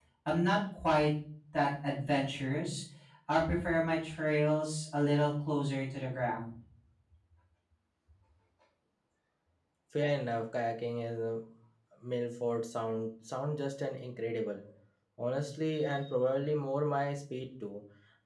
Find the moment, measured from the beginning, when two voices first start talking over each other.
none

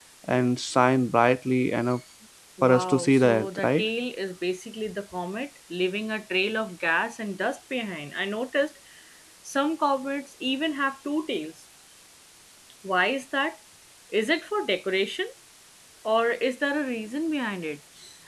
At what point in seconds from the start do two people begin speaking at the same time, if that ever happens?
3 s

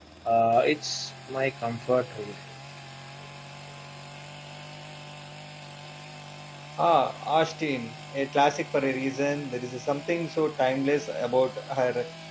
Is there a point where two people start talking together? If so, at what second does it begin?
none

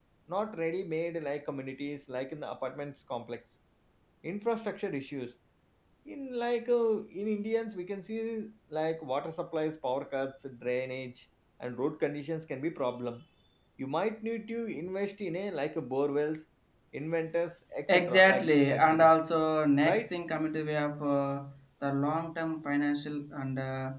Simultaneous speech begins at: 18 s

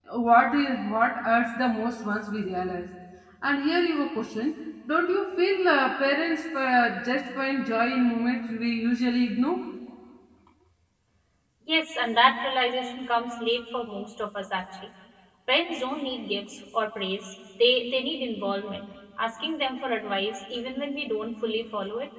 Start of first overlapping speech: none

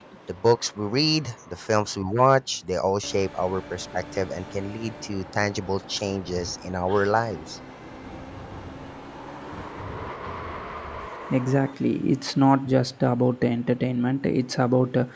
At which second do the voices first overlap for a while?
none

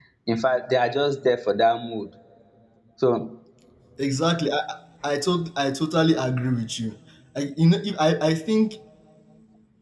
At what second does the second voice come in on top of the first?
none

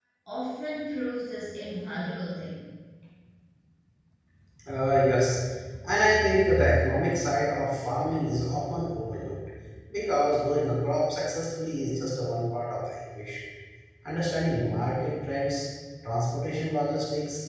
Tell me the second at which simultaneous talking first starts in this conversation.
none

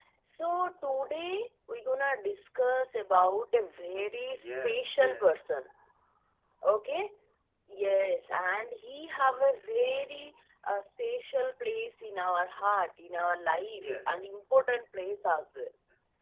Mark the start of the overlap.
4 s

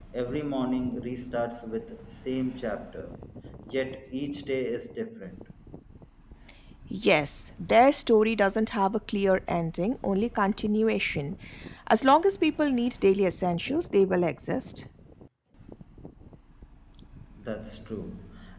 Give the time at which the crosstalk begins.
none

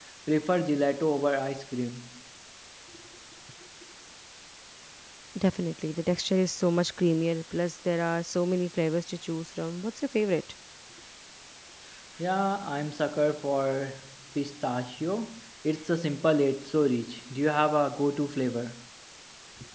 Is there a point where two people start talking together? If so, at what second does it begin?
none

